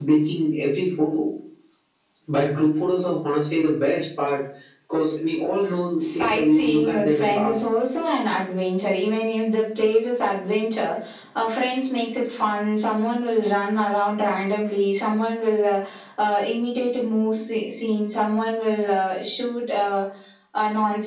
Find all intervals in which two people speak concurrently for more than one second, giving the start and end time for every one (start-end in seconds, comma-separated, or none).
6.0-7.5